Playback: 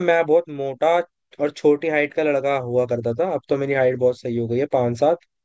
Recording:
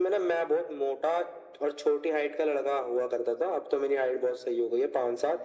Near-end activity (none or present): none